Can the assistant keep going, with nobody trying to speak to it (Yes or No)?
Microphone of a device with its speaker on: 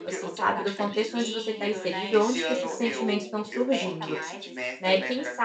No